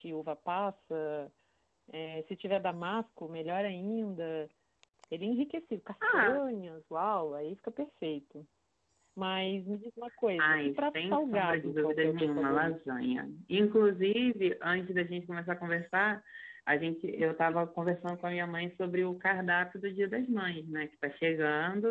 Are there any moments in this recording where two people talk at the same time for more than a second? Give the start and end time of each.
10.4-12.7

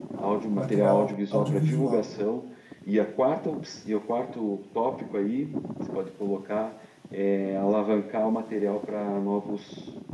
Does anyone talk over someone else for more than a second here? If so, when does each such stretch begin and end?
0.6-2.1

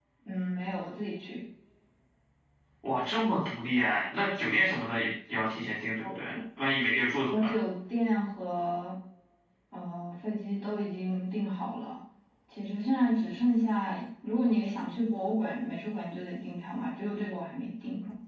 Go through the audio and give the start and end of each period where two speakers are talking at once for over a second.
none

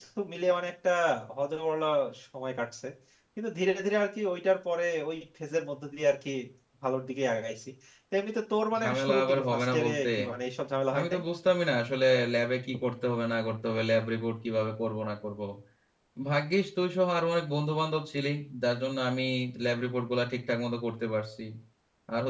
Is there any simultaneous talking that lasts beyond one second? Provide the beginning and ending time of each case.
8.8-10.1

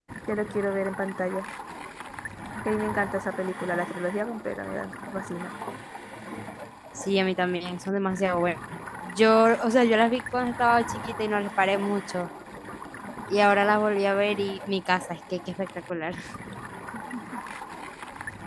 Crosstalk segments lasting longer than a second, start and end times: none

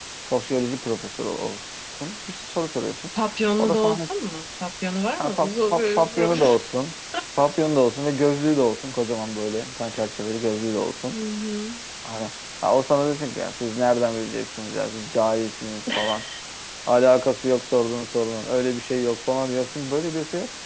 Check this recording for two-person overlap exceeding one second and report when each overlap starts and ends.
5.2-6.6

